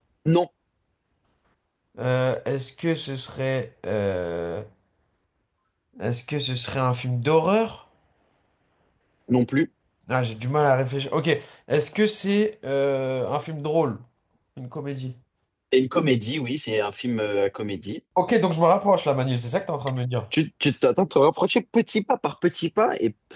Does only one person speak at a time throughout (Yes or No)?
Yes